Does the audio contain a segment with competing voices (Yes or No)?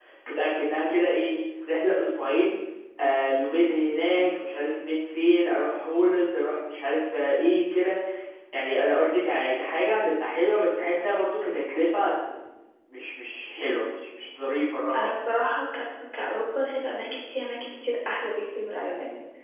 No